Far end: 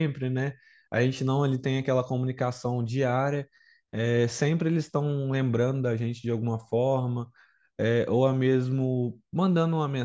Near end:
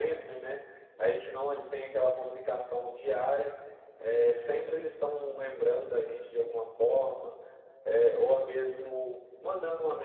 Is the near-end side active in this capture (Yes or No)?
No